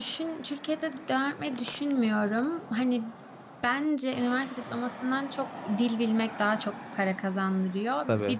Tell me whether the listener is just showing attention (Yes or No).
Yes